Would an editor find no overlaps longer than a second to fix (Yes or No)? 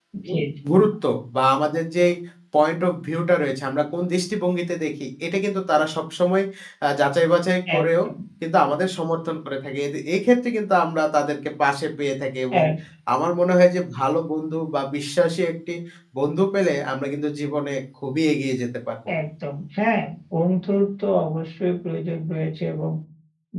Yes